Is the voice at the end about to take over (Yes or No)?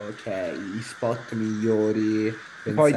Yes